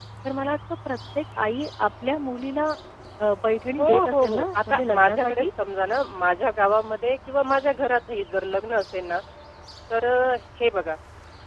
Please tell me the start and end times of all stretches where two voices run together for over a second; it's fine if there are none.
3.8-5.5

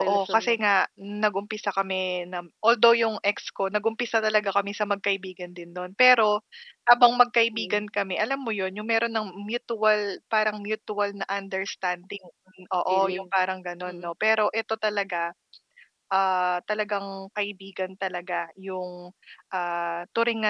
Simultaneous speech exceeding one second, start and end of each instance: none

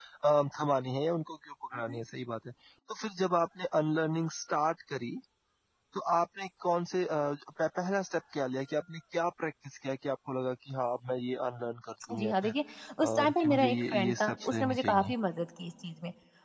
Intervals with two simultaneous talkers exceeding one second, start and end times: 13.0-15.1

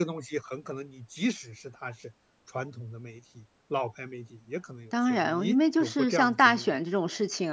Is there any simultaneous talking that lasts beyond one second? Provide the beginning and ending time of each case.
5.1-6.7

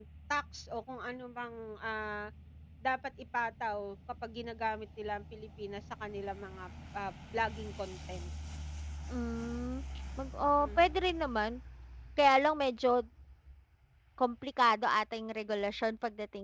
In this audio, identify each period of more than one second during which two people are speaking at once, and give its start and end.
none

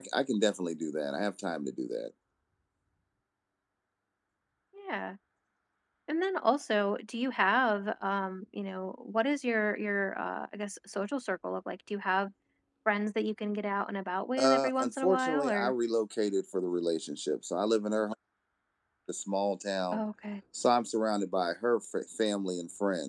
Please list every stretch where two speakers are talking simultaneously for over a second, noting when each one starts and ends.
14.4-15.7

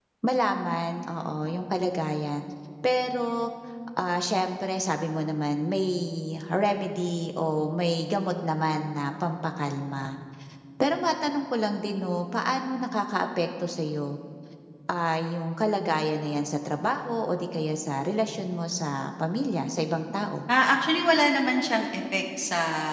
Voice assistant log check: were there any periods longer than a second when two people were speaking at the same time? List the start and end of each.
none

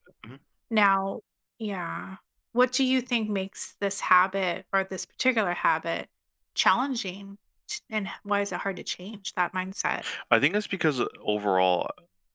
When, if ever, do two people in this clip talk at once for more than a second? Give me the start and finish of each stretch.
none

